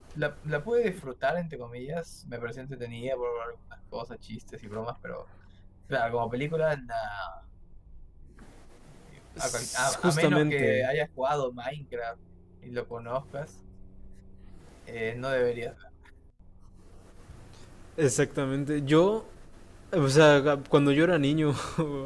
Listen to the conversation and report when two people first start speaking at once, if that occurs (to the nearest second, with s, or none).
9 s